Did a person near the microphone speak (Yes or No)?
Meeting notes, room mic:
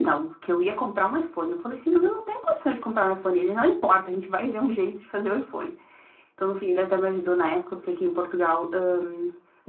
No